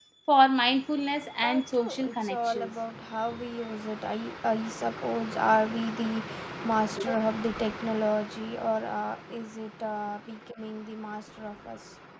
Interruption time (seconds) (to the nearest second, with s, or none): 1 s